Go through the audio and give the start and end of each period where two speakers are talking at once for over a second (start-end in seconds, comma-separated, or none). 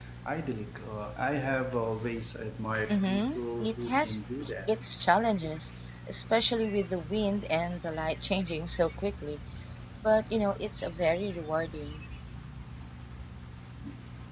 2.9-4.2